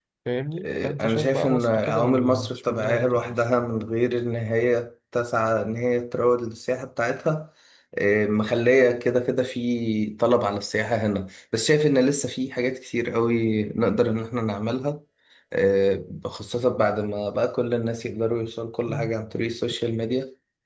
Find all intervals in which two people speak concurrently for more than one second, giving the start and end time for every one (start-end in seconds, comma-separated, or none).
0.6-3.4